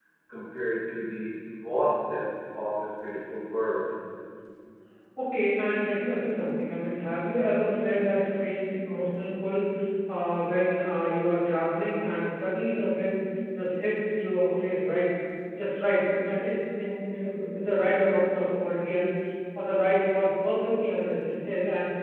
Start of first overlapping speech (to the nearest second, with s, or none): none